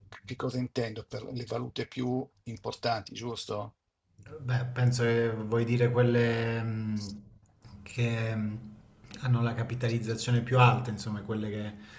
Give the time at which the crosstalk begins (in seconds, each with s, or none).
none